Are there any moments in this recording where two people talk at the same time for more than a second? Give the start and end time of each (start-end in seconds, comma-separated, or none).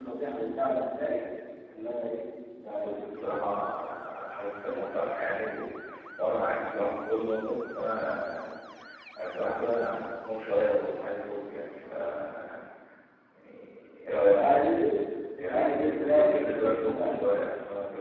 15.4-17.2